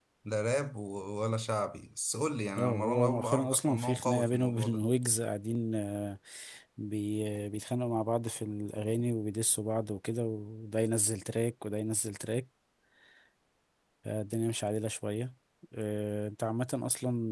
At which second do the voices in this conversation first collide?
2.6 s

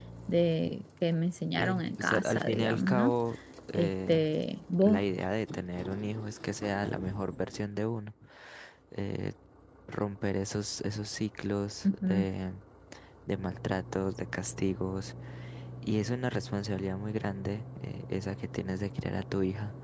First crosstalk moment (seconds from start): 1.6 s

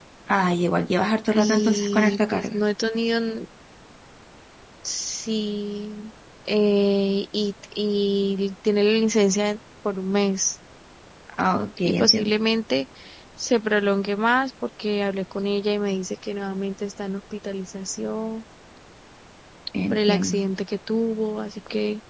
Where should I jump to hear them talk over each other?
1.3 s

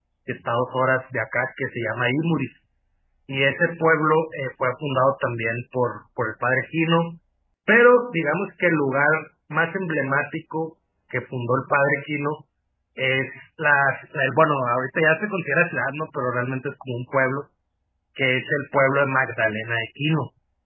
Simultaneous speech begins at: none

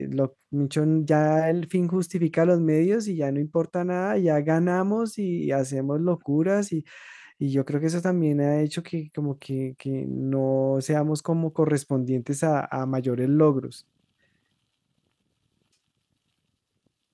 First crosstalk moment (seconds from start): none

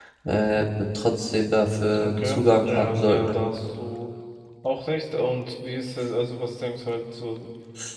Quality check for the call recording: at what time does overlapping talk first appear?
1.9 s

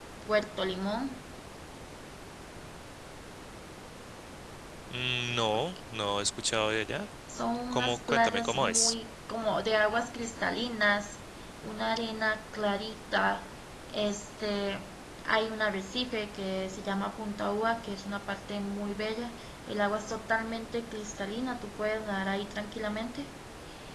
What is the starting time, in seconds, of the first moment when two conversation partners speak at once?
7.7 s

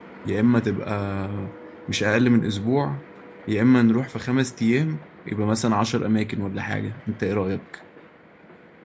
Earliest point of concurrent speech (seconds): none

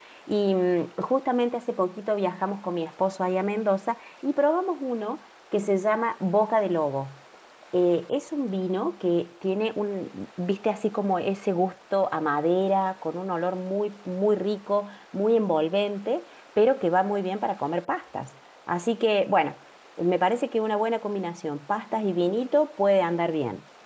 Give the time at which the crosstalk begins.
none

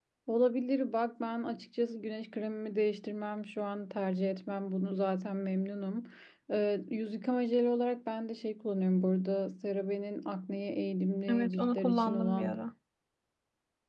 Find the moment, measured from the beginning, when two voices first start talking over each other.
11.3 s

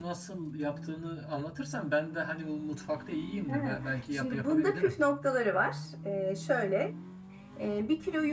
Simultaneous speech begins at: 3.5 s

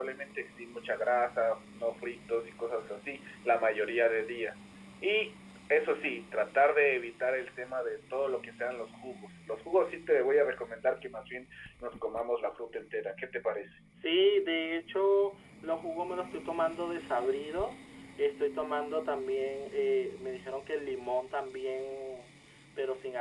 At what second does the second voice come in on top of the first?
none

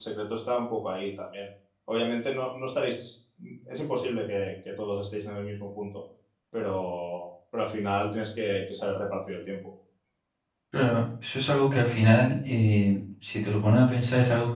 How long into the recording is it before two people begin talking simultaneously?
none

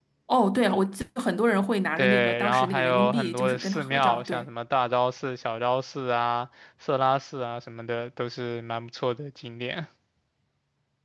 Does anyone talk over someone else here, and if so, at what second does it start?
2.0 s

